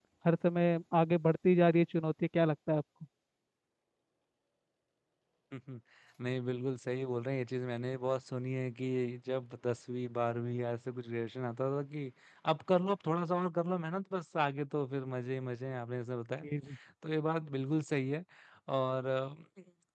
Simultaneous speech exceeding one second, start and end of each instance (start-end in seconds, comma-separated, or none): none